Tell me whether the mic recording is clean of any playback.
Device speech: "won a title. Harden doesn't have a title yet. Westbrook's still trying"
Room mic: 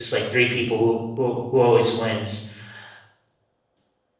Yes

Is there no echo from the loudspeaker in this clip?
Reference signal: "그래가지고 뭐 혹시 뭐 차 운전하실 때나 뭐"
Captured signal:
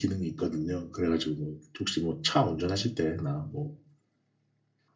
No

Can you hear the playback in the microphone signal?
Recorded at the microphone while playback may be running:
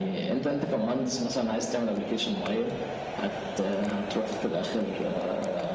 Yes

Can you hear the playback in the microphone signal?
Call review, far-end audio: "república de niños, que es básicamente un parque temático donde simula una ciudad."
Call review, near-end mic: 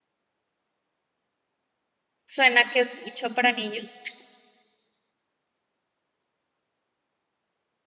No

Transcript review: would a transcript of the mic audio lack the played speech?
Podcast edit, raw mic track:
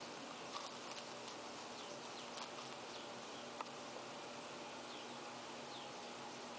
Yes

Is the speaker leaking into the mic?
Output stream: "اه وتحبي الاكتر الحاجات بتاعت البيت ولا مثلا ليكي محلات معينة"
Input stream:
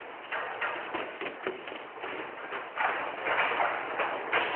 No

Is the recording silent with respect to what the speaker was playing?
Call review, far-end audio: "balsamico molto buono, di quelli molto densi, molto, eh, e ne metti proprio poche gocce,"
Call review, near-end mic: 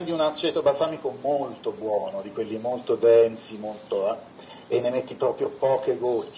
No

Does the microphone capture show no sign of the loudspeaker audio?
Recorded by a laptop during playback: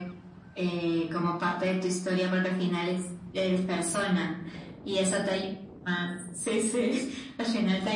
No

